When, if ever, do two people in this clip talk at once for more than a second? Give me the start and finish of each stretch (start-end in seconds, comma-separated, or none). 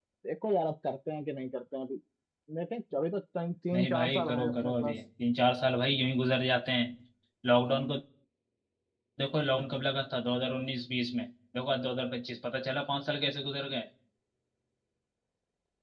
3.7-5.0